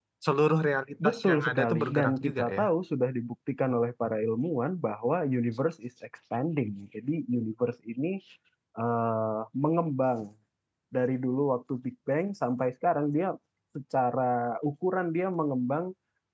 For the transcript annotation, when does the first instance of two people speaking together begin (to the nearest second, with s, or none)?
1 s